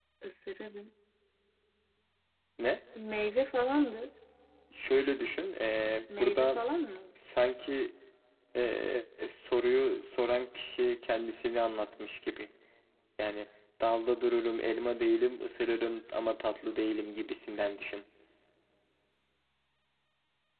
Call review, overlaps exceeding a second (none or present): none